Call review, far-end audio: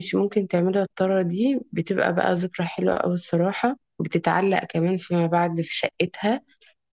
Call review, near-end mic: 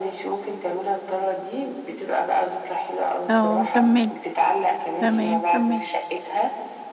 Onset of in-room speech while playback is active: 3.3 s

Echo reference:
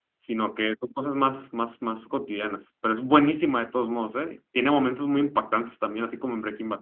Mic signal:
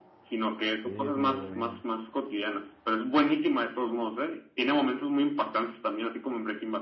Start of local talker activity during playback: 0.8 s

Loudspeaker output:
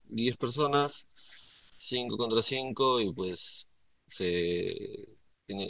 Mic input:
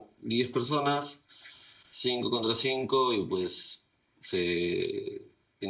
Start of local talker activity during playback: none

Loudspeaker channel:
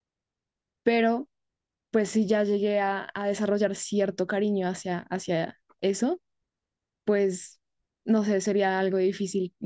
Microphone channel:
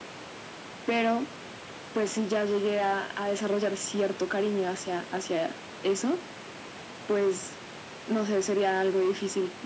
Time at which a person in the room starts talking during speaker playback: none

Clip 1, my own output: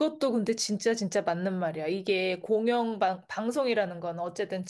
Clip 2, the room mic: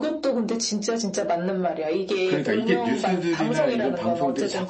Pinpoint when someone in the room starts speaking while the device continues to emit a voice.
2.2 s

